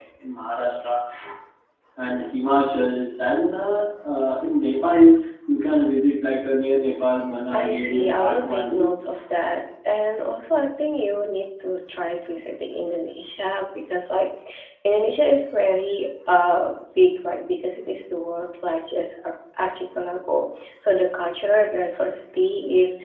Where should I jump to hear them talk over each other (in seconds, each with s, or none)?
7.5 s